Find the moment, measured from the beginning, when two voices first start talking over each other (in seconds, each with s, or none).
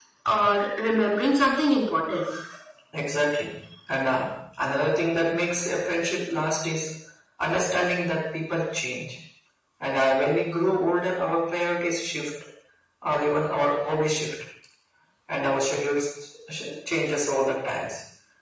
none